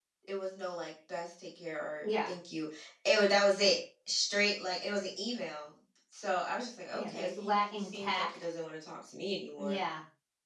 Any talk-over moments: Yes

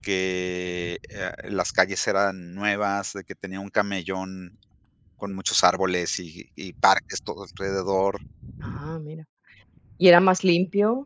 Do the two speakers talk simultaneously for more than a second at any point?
No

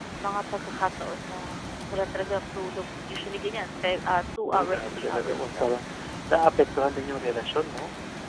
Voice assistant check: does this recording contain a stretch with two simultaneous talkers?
Yes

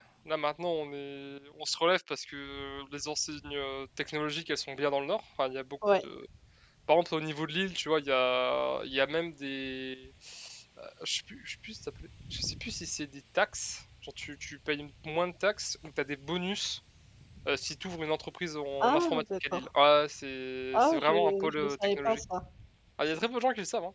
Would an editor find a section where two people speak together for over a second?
Yes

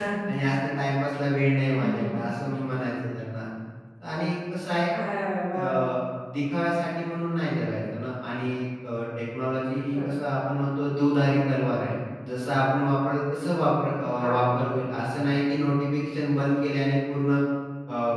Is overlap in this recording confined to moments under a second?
Yes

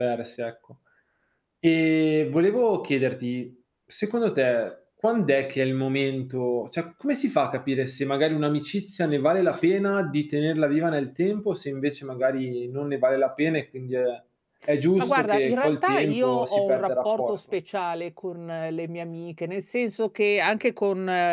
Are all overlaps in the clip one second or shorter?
No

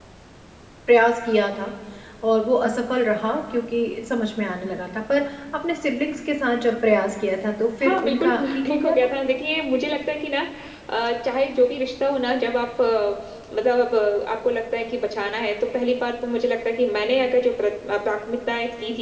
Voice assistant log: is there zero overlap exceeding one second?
No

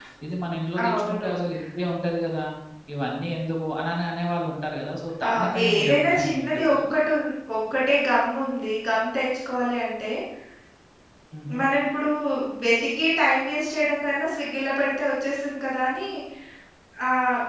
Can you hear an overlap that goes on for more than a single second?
Yes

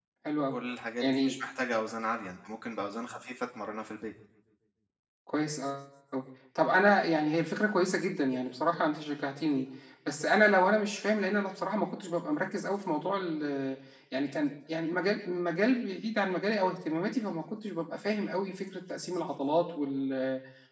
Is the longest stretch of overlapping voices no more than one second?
Yes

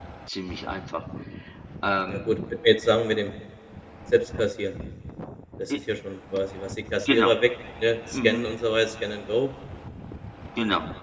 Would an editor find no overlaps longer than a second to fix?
Yes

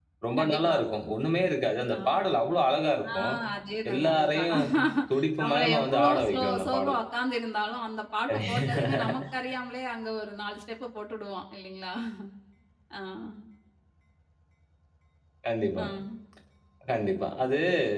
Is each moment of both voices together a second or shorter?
No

